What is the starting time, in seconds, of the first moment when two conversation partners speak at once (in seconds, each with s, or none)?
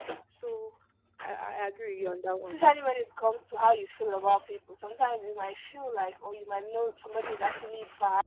none